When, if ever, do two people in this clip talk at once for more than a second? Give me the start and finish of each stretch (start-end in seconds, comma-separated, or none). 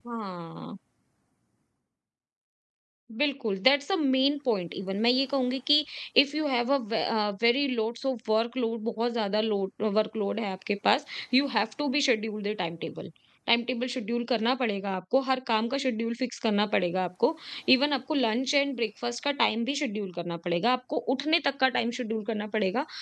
none